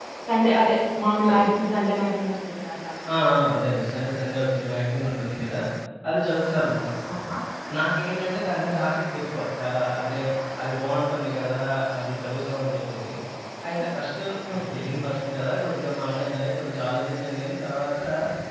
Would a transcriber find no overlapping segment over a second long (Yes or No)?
Yes